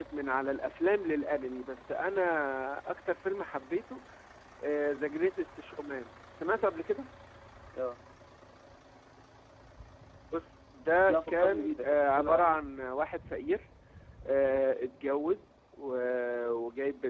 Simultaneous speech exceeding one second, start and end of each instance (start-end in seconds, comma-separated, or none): 11.1-12.6